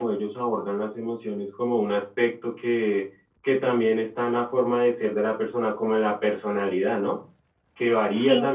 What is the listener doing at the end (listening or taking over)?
listening